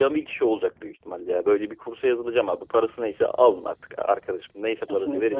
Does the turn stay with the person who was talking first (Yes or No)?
No